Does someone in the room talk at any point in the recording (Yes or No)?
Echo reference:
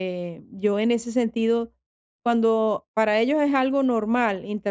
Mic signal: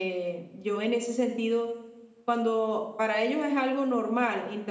No